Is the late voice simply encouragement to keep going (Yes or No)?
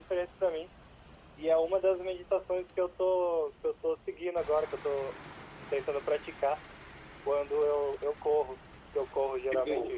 Yes